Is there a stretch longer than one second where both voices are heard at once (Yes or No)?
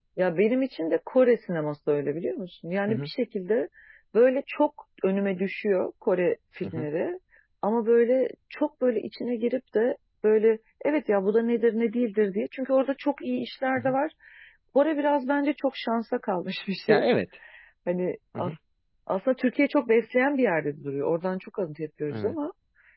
No